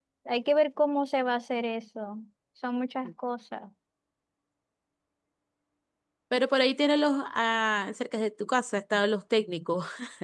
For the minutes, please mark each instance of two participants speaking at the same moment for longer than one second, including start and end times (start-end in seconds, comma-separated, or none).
none